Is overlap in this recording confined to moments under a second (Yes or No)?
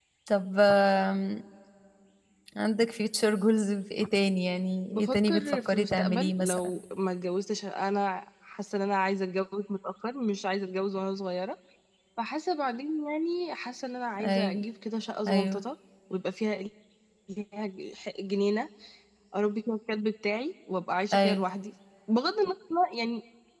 No